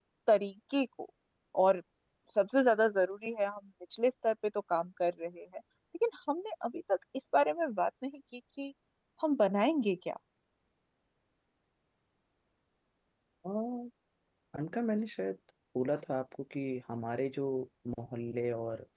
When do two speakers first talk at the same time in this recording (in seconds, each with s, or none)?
none